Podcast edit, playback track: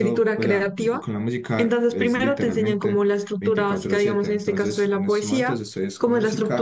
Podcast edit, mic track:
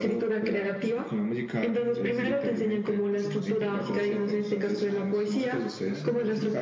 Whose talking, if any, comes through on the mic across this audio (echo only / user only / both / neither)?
both